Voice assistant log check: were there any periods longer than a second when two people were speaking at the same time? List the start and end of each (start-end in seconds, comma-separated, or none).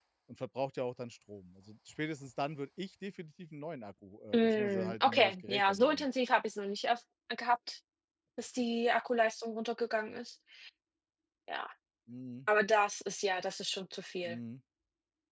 4.3-6.0